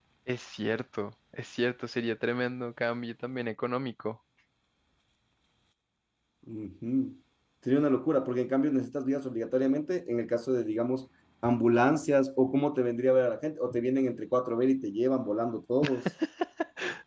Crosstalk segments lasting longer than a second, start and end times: none

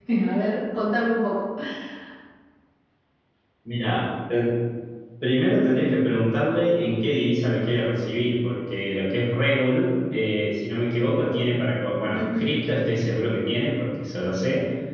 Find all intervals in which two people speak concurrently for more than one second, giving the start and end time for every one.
none

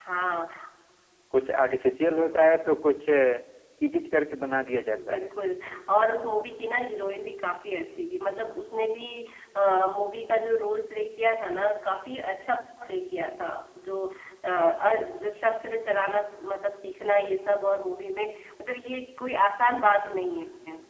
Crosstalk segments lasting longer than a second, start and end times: none

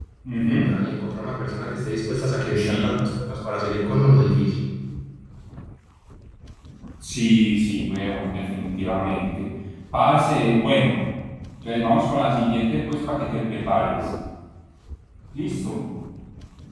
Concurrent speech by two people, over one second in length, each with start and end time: none

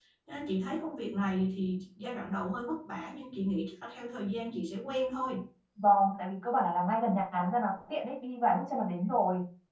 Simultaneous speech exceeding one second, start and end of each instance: none

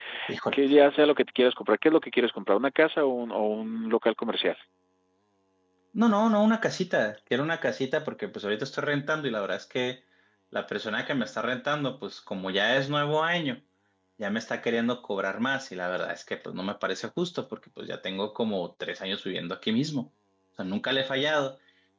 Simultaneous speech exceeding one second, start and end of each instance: none

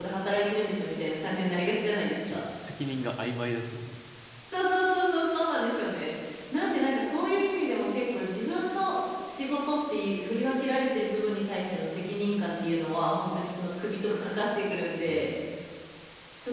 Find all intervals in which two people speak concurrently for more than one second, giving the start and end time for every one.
none

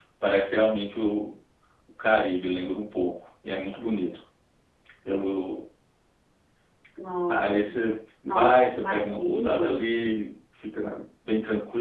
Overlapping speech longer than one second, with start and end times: 8.2-9.8

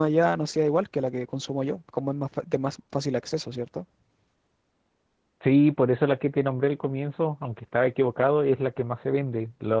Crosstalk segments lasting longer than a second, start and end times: none

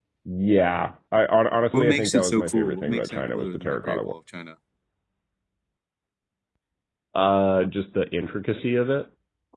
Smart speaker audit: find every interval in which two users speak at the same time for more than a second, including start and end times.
1.7-4.1

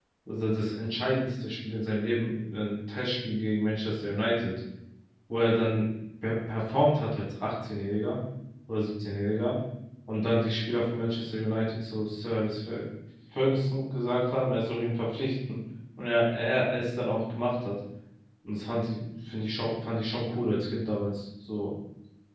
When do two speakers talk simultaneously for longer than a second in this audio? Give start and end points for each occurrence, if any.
none

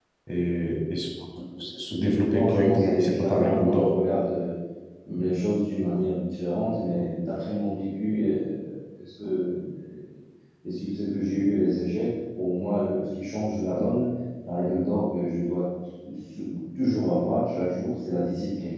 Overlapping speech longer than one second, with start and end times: 2.0-3.9

